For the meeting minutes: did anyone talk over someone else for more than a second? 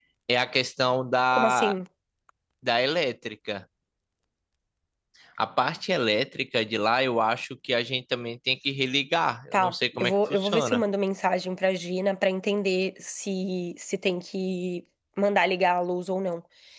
Yes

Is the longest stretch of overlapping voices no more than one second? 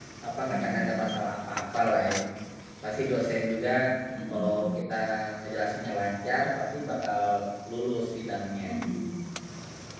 Yes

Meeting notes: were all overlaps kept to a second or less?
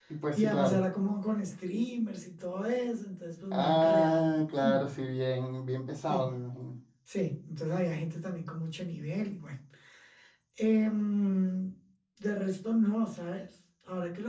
No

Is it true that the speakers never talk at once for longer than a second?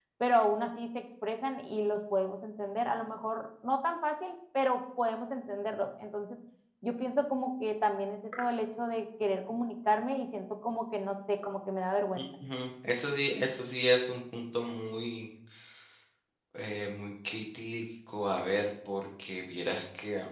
Yes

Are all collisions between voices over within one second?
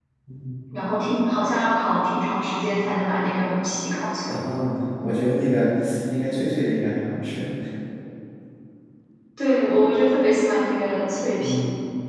Yes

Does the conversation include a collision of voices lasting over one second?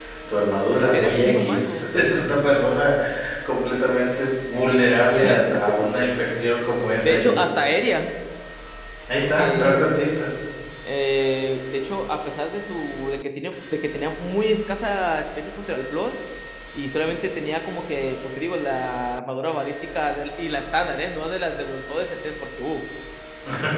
Yes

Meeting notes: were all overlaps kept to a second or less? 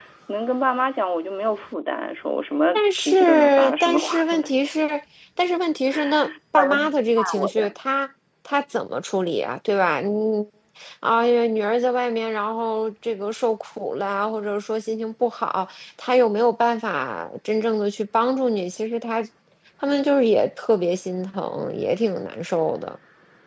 No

